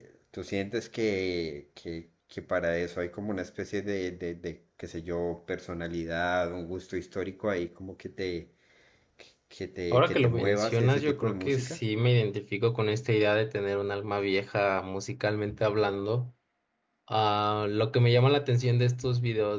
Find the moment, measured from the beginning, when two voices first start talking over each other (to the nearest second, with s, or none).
10 s